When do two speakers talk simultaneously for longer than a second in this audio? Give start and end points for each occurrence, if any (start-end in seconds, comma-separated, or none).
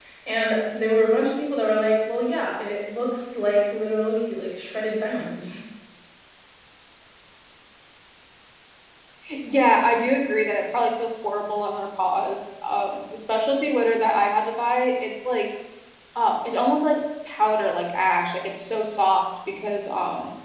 none